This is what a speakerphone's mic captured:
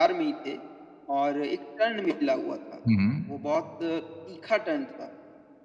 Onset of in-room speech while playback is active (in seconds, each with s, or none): 2.8 s